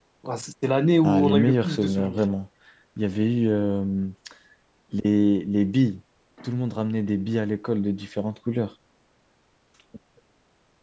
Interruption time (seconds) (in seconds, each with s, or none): 1.0 s